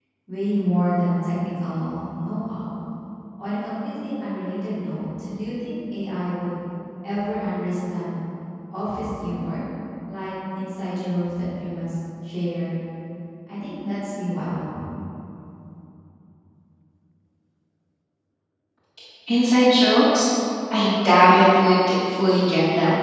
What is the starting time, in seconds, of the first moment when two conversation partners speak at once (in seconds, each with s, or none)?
none